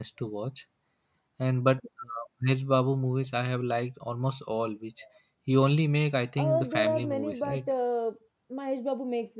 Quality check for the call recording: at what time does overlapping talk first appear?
6 s

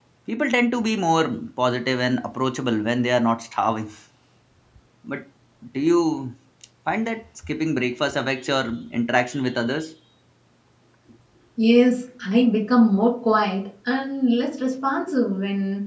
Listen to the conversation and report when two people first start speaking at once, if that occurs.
none

